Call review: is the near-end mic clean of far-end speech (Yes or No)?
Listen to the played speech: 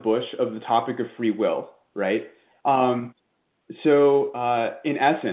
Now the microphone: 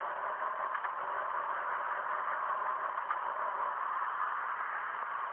Yes